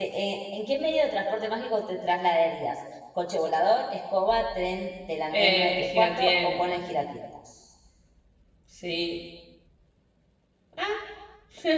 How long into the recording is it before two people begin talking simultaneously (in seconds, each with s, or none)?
5.3 s